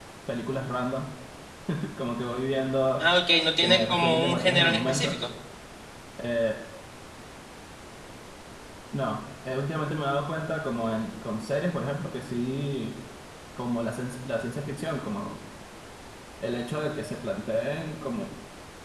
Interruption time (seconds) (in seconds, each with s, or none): 3.6 s